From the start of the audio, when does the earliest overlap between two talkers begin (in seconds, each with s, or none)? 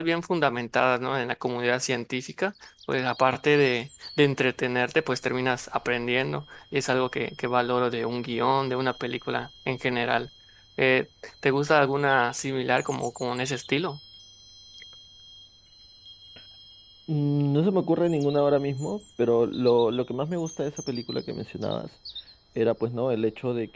none